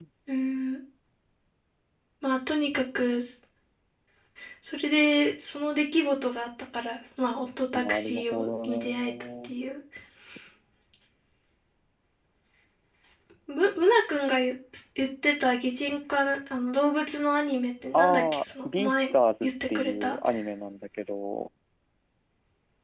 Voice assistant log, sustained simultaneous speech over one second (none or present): present